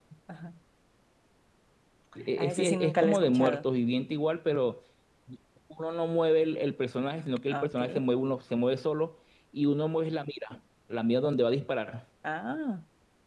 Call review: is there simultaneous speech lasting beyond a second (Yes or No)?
Yes